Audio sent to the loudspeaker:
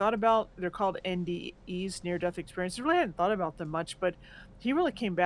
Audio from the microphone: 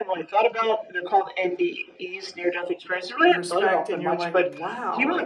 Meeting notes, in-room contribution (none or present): present